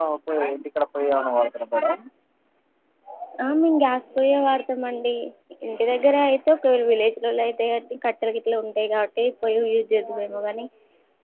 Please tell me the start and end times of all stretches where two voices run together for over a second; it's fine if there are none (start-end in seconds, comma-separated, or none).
none